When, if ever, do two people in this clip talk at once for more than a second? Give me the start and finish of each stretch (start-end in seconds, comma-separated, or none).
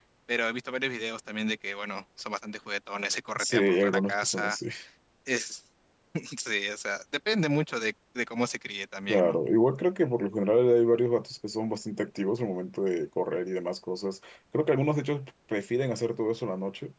3.4-4.6